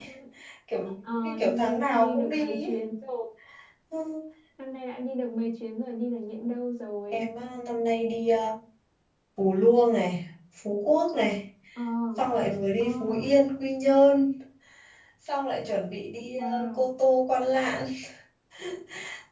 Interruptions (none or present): present